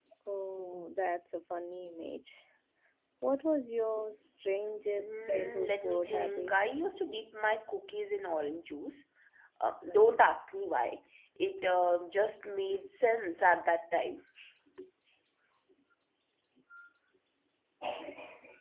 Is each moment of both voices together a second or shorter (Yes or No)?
No